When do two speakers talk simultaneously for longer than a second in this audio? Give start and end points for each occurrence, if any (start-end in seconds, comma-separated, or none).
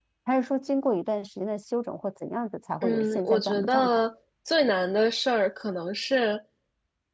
2.8-4.0